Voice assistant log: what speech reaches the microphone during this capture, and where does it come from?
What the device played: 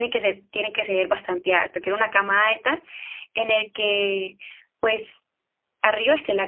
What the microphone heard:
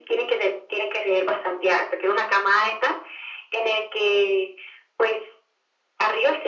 echo only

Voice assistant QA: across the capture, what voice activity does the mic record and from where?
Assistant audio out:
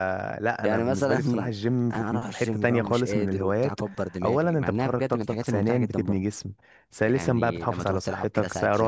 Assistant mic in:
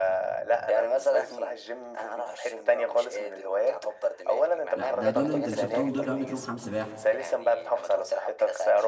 both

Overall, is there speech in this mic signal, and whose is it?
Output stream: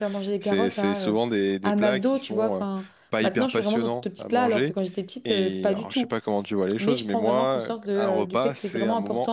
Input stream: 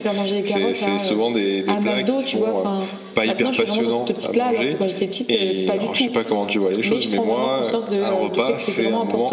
echo only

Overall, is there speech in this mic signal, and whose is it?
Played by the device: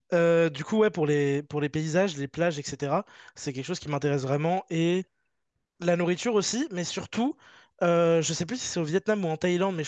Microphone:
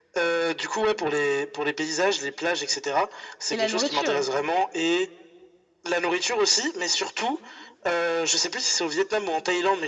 both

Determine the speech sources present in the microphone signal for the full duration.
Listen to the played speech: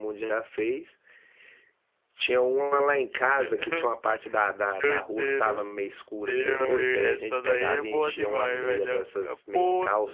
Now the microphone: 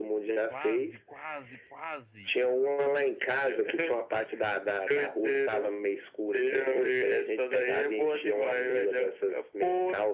both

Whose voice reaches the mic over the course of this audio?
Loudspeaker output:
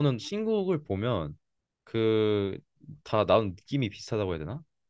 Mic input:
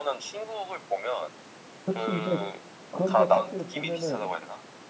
both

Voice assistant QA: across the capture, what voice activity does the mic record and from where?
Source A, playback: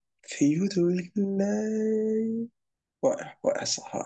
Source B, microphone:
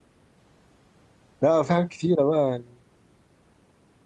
user only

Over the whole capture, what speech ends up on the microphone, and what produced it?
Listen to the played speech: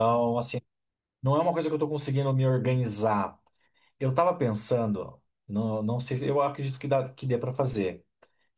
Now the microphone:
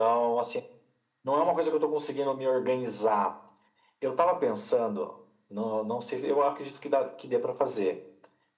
echo only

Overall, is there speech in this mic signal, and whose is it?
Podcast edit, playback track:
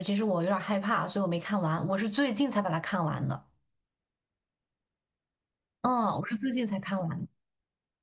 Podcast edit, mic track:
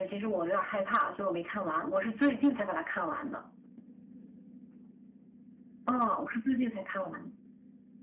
echo only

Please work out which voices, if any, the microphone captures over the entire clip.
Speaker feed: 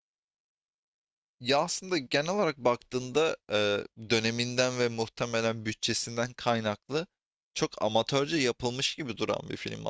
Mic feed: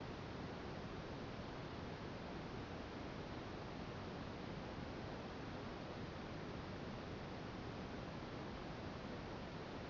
neither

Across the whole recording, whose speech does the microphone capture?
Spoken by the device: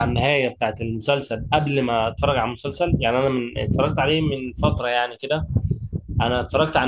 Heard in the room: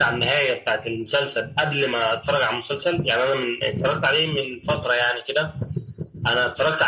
echo only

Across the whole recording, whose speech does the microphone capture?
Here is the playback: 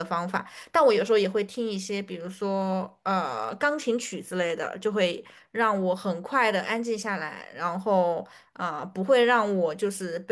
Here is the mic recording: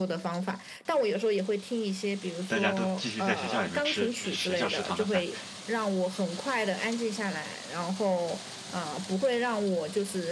both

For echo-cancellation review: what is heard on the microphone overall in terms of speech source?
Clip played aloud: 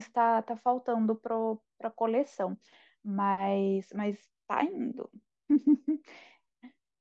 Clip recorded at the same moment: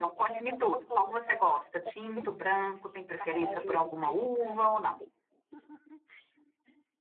both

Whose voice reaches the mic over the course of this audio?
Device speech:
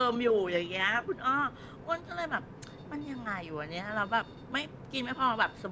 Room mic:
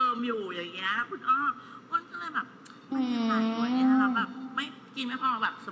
both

